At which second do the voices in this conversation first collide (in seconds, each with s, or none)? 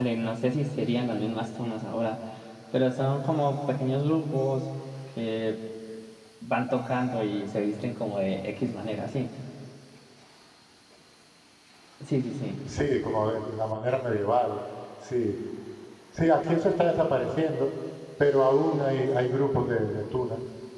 none